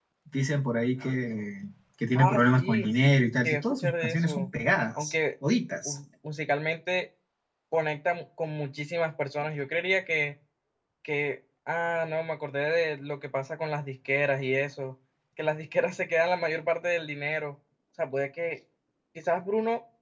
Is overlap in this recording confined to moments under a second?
No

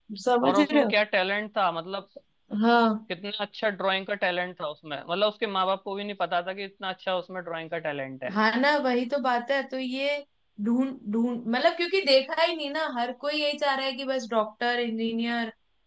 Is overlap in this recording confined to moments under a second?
Yes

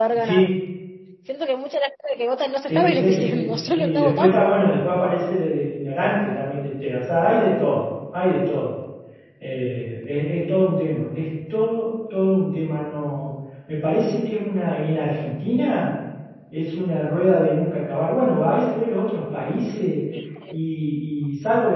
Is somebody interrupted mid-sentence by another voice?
Yes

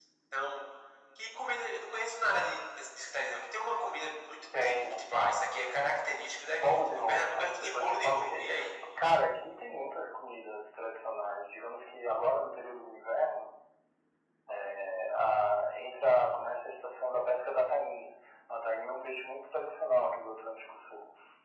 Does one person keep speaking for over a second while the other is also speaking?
Yes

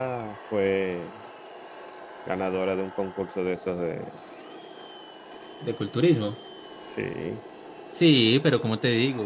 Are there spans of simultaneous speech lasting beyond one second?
No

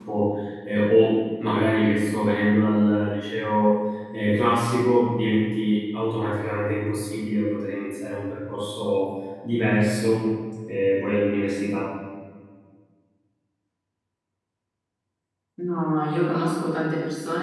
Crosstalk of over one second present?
No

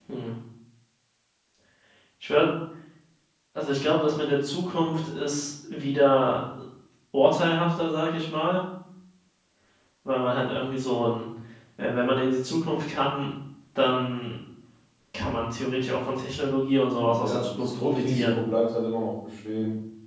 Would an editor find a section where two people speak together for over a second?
Yes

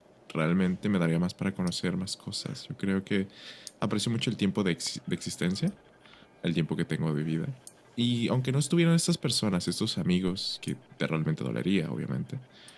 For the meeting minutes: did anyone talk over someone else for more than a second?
No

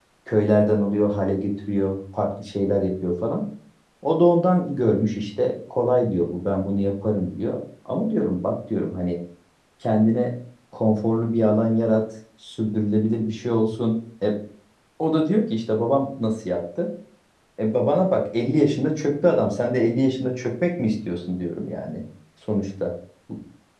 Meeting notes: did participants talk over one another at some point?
No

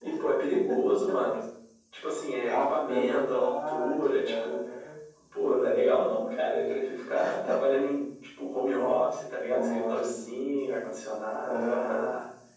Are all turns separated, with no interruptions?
No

